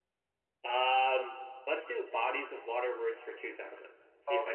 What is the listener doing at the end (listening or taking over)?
taking over